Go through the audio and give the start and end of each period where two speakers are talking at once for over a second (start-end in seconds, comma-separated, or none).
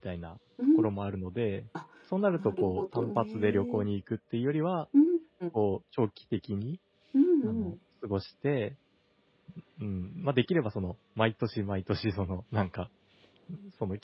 2.3-3.8